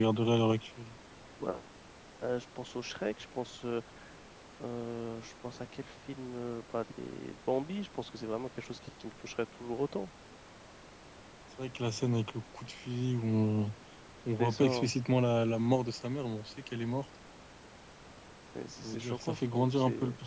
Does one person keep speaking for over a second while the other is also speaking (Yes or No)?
Yes